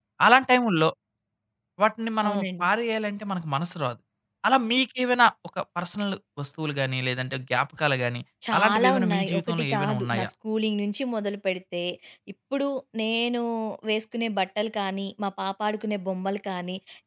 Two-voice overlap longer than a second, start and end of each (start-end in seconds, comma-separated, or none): 8.6-10.3